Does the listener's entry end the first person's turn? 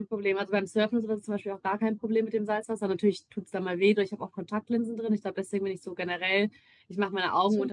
No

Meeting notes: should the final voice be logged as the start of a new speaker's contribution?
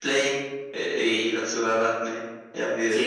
Yes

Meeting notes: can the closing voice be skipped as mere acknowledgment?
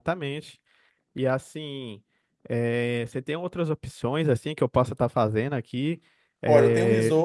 No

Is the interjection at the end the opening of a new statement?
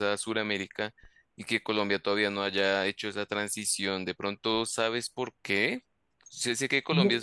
No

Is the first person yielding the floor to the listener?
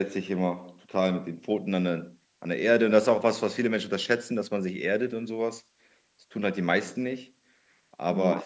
No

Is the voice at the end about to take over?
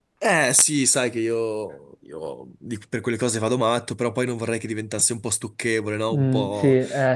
Yes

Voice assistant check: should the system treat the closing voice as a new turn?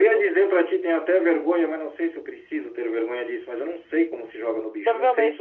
Yes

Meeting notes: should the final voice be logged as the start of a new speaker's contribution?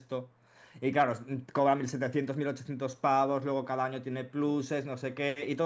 No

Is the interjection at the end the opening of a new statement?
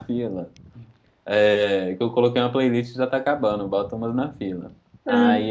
No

